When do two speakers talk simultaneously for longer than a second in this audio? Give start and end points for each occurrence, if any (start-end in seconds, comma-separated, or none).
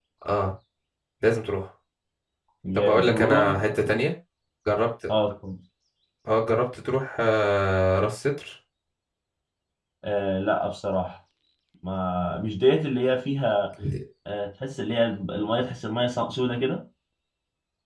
2.7-4.0